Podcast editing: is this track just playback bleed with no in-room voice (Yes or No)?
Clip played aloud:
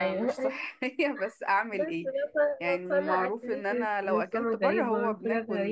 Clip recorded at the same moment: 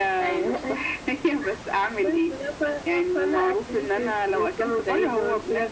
Yes